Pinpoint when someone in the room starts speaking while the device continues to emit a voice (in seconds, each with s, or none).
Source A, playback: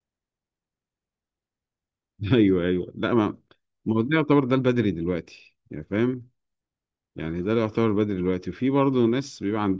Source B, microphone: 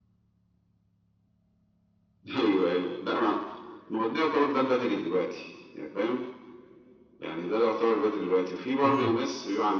8.8 s